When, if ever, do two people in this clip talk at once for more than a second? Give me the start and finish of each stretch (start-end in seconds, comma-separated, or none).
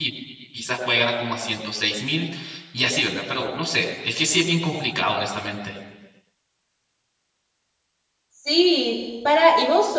none